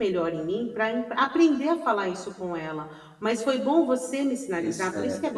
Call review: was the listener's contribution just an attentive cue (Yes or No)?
Yes